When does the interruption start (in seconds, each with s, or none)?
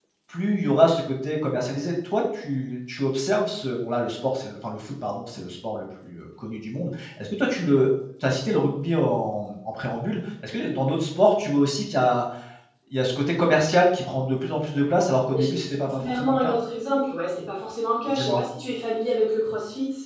15.3 s